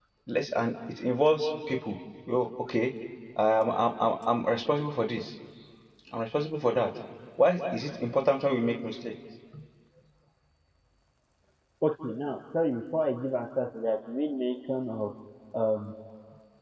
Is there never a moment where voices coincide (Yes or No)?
Yes